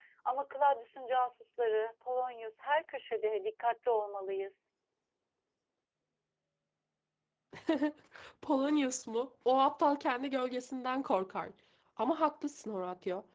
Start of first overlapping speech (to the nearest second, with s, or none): none